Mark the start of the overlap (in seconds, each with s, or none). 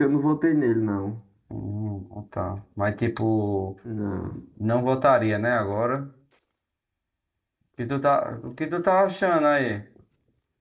none